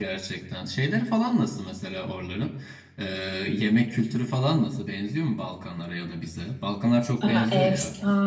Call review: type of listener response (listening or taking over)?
taking over